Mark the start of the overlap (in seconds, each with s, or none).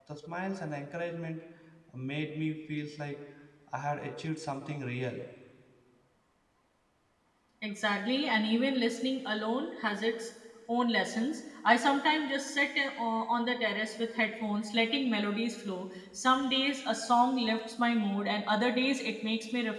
none